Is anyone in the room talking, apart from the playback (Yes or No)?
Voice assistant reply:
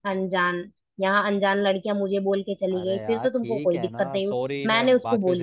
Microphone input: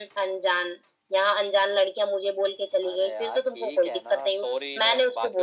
No